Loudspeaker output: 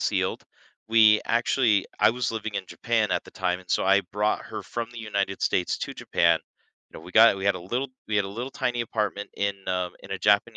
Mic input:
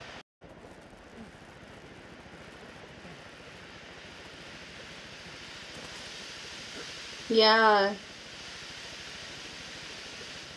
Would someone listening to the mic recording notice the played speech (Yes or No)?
No